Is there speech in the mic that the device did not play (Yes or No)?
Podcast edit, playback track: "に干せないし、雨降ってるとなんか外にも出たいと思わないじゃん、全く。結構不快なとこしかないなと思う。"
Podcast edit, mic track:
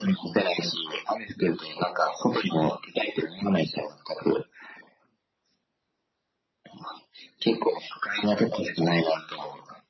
No